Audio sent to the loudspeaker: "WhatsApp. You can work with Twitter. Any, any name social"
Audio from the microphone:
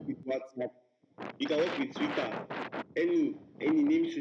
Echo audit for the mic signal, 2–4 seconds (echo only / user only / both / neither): echo only